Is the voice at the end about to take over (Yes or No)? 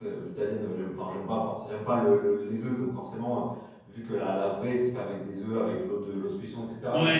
Yes